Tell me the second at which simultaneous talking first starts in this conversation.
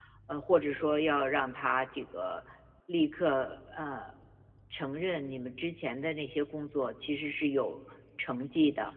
none

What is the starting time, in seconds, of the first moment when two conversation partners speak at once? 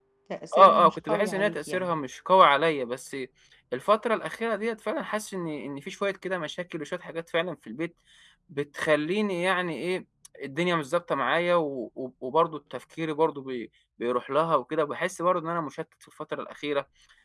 0.6 s

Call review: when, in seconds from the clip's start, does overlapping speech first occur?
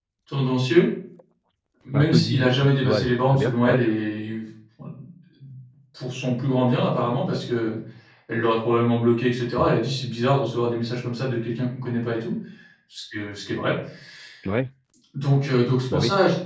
1.9 s

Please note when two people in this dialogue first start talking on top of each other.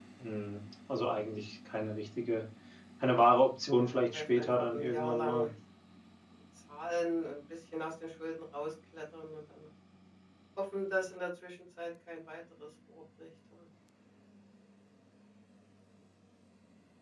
3.7 s

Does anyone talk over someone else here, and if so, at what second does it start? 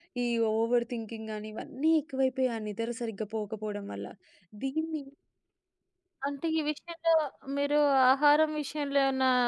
none

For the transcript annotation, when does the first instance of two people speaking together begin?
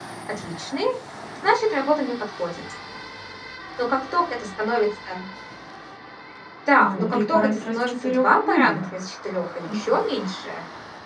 6.8 s

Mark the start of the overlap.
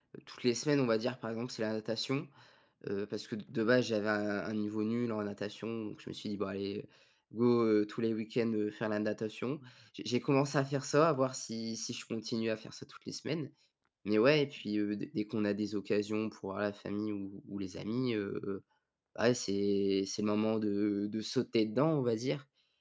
none

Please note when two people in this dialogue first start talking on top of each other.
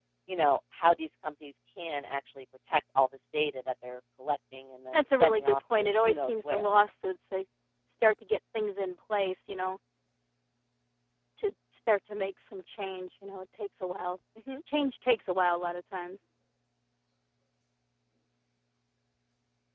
4.9 s

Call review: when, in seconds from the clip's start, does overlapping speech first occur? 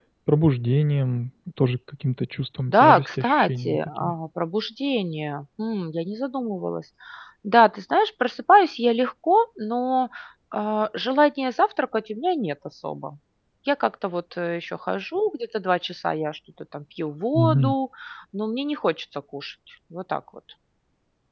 2.7 s

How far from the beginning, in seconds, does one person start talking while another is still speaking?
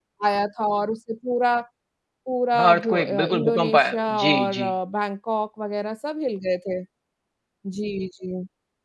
2.6 s

